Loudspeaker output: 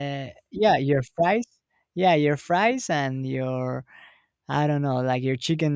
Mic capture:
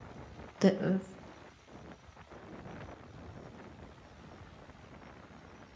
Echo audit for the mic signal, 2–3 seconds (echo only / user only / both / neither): neither